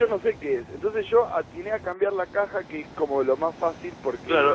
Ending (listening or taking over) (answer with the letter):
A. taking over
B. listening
A